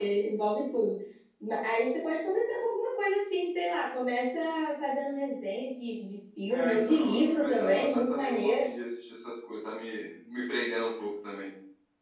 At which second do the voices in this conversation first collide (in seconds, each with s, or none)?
6.5 s